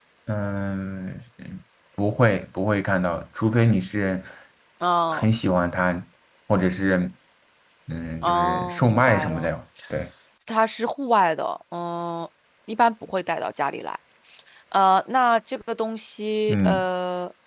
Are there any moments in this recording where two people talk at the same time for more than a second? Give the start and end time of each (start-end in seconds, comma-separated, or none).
8.2-9.5